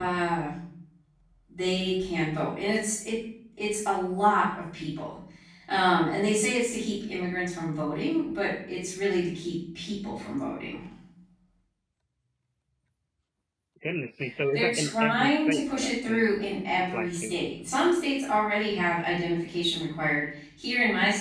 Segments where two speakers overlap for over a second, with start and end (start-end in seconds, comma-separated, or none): 14.5-16.3